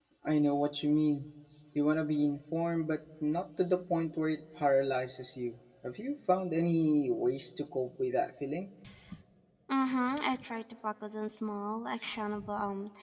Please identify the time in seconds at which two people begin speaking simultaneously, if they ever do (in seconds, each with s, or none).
none